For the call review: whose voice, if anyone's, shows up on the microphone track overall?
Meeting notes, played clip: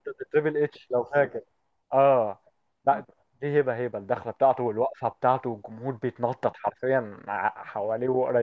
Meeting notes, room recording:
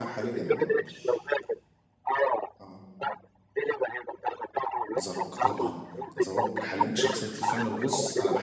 both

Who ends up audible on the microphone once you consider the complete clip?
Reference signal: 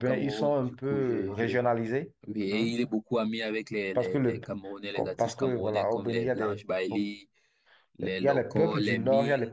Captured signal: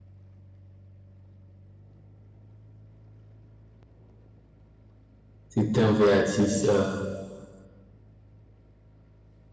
user only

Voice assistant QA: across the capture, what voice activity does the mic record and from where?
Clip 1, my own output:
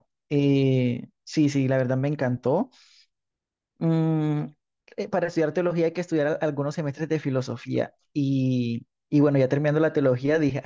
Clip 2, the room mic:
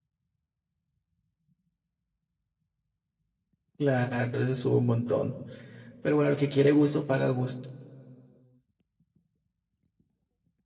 user only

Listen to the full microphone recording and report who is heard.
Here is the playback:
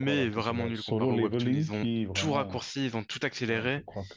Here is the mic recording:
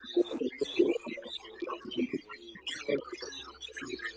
echo only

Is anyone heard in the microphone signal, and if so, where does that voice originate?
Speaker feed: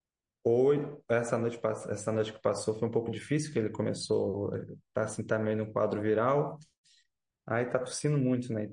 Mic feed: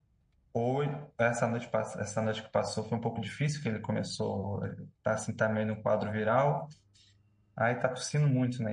echo only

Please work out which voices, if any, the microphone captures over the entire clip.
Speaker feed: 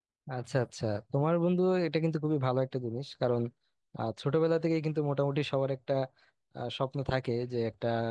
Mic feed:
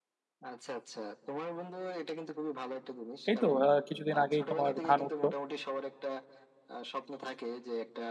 both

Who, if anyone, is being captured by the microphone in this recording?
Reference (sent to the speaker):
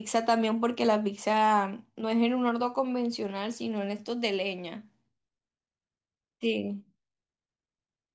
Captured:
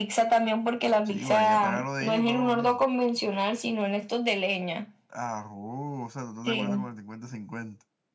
both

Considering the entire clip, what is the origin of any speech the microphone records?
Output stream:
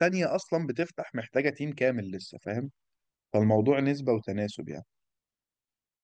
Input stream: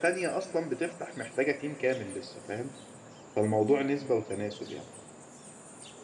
echo only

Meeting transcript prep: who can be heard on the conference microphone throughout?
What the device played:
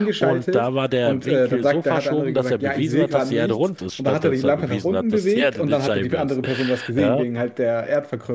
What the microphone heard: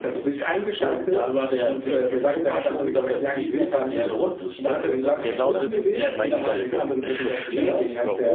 both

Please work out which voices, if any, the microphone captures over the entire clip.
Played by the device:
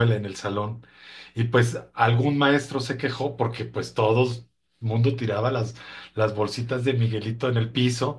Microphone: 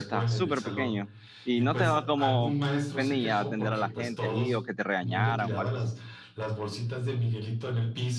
both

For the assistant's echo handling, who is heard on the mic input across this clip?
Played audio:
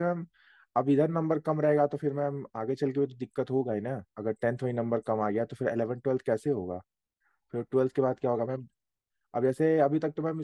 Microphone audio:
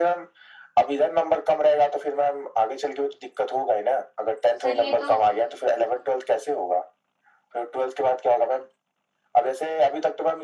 both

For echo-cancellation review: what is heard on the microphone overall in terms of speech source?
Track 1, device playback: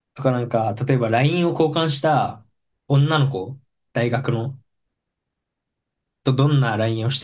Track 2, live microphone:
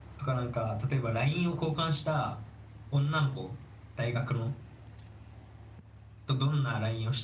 echo only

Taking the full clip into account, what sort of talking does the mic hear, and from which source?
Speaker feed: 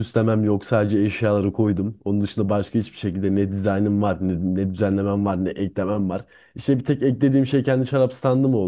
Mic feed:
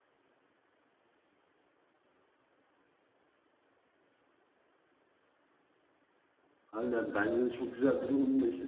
user only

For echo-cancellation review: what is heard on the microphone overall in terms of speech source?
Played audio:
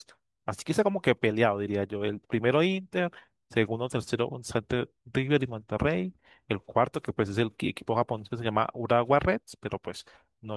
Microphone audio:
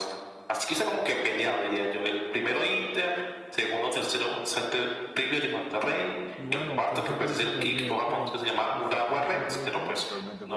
both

